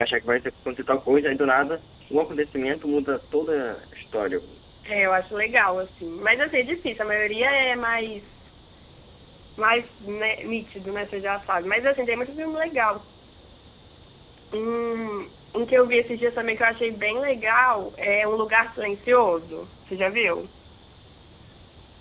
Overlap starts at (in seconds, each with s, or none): none